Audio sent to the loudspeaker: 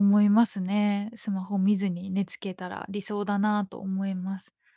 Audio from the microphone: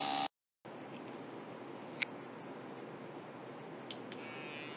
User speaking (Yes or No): No